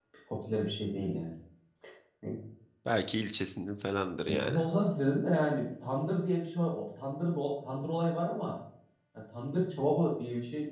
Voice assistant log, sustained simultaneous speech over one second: none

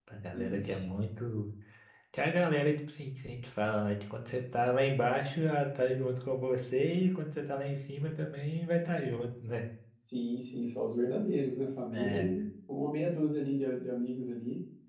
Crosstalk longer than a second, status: none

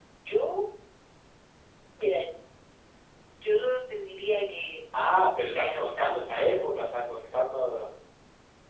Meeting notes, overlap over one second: present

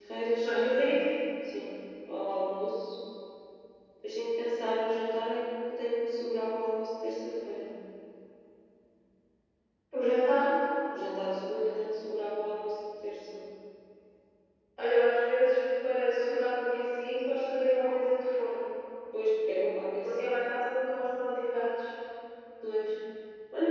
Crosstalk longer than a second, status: none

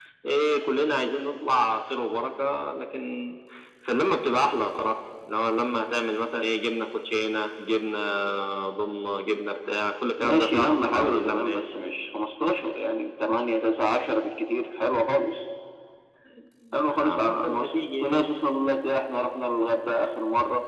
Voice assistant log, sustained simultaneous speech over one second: present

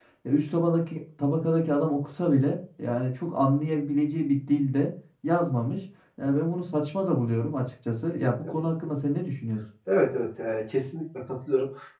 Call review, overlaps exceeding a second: none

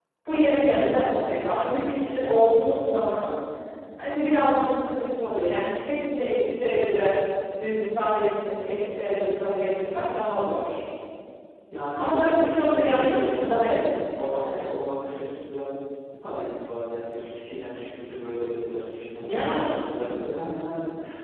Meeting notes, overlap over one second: present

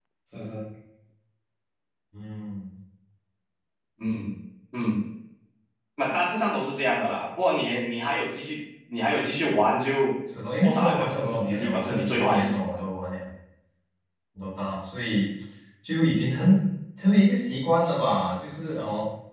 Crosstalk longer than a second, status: present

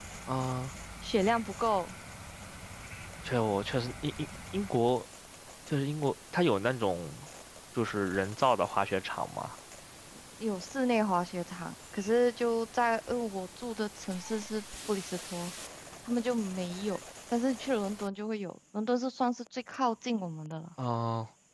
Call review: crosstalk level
none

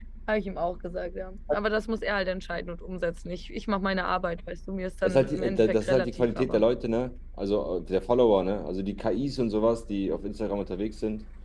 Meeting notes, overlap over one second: present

